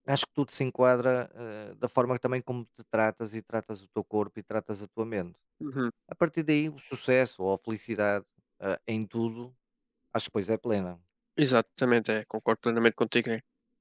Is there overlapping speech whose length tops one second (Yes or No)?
No